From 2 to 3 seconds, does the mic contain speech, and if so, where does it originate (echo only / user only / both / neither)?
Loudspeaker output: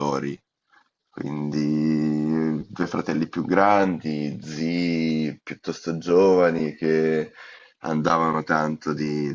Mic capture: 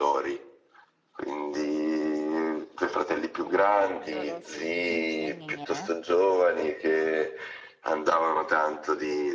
echo only